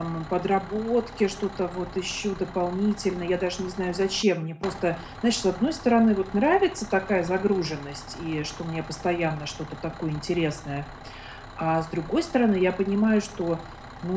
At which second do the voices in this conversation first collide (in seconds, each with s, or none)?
none